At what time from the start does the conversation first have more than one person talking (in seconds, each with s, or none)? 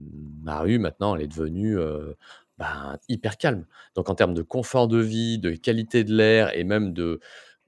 none